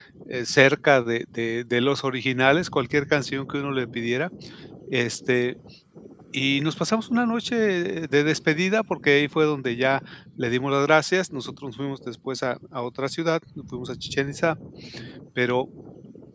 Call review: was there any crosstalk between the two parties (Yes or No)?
No